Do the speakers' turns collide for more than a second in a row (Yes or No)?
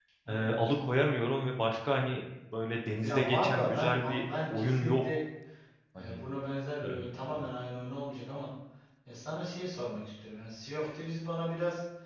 Yes